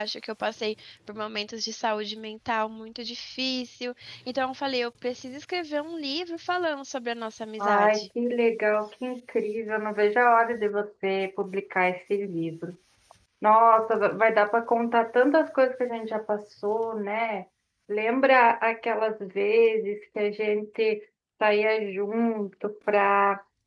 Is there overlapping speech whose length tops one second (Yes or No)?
No